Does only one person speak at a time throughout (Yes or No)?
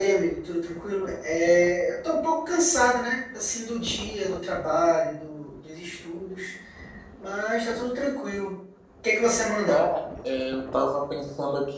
Yes